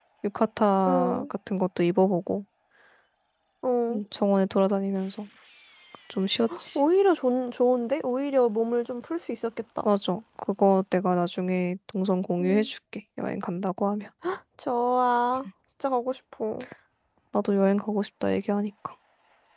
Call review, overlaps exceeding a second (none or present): none